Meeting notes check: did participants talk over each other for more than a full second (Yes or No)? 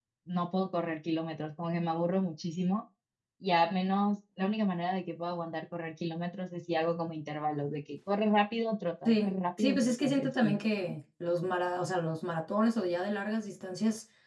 Yes